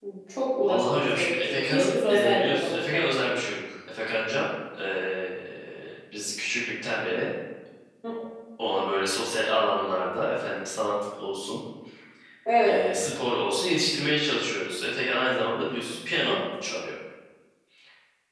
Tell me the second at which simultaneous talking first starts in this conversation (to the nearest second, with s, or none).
1 s